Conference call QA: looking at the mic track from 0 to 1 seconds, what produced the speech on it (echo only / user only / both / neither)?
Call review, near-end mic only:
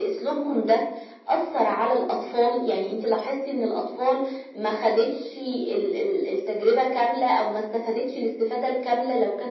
echo only